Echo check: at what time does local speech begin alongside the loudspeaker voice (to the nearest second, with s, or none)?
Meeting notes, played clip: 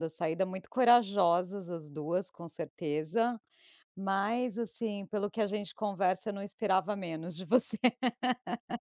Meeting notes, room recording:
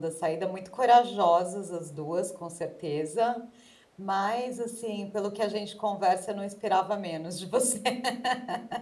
none